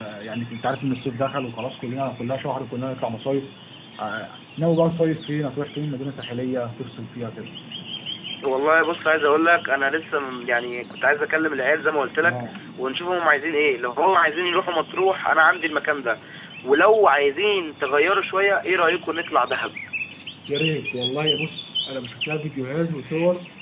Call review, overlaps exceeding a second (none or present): none